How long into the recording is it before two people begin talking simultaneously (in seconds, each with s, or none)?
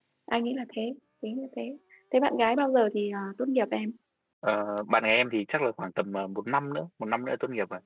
none